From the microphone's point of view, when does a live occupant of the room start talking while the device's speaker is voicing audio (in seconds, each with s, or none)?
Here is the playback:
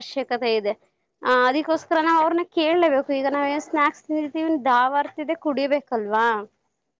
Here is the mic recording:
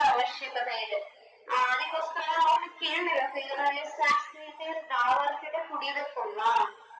none